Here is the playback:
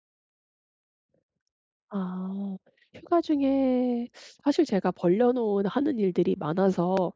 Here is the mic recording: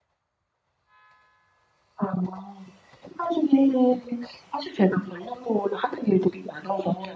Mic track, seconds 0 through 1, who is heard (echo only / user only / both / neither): neither